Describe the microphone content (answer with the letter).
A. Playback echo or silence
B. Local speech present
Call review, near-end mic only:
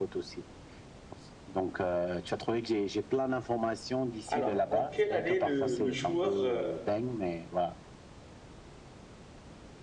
B